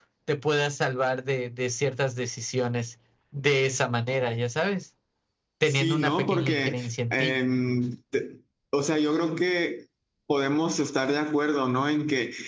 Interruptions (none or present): present